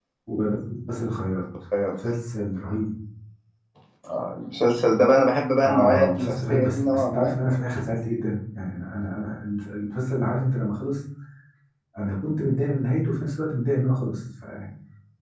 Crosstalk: present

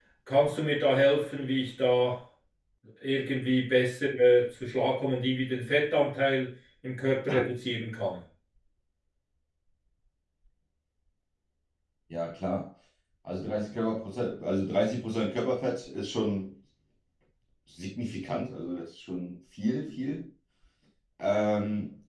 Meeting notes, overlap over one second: none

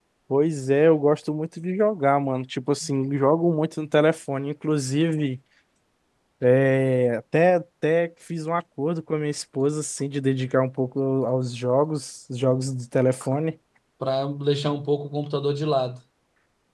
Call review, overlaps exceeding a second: none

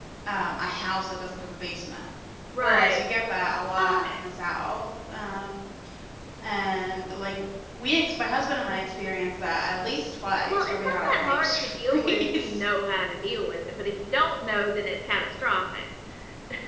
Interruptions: present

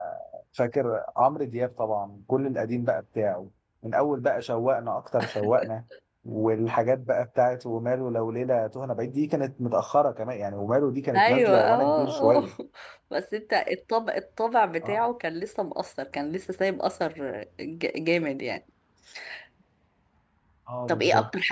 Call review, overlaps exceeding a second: present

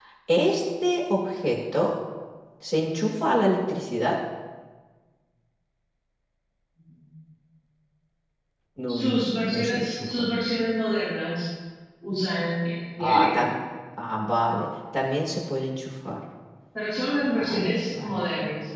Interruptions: present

